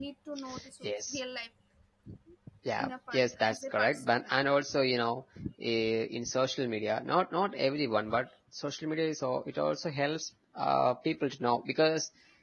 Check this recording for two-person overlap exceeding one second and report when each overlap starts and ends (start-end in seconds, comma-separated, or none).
2.8-4.1